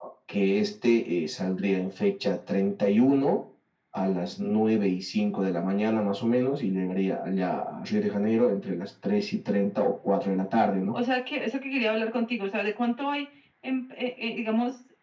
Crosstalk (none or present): none